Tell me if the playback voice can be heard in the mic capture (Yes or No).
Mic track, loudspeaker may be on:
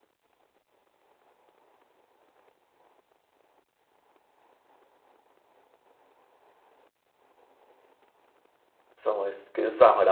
No